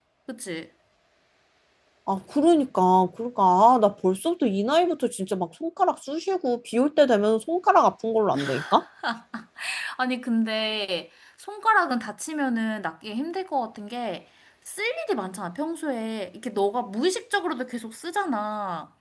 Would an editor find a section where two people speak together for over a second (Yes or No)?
No